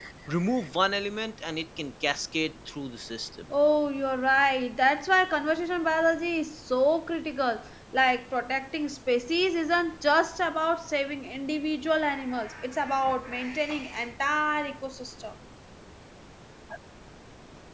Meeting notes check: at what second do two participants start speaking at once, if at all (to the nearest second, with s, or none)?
none